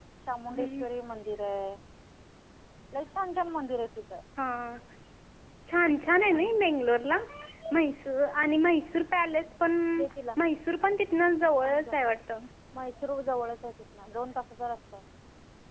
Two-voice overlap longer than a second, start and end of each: none

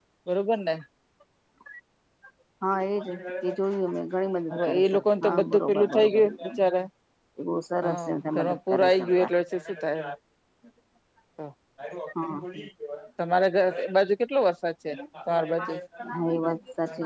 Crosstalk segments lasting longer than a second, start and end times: 4.5-6.5, 7.8-9.3

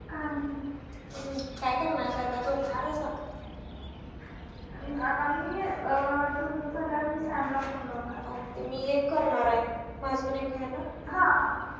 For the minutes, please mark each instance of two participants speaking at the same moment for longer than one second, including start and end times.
none

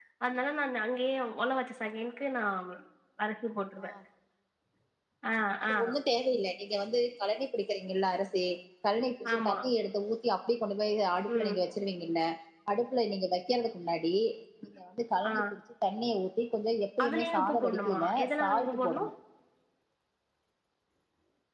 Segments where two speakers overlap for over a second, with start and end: 17.0-19.0

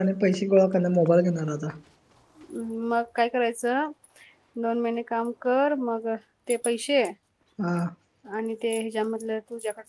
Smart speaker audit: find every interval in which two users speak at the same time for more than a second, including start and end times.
none

